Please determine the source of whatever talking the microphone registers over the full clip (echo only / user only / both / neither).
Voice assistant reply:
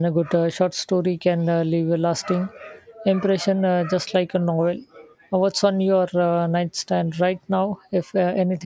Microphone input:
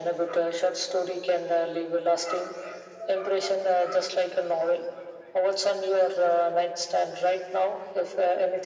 echo only